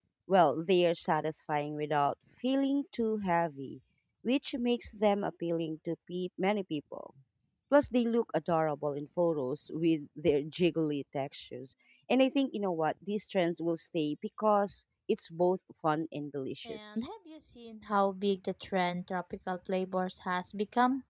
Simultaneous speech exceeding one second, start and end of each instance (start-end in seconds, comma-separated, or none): none